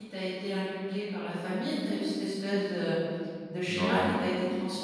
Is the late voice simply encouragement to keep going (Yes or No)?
Yes